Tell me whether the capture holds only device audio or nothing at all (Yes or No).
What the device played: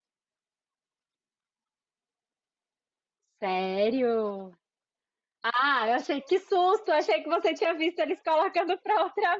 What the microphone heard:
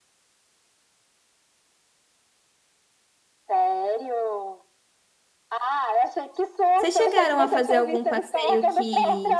No